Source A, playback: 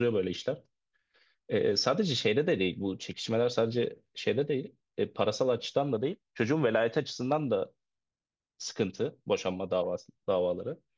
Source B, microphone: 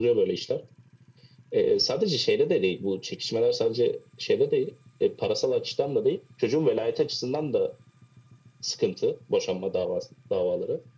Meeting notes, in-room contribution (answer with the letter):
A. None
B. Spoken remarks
A